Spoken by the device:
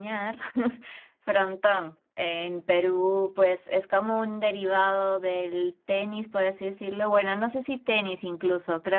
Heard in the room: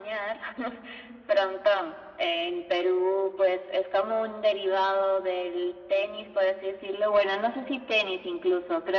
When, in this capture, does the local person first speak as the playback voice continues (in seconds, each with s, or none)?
none